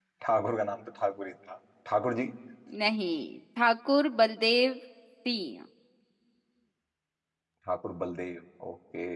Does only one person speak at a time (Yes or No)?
Yes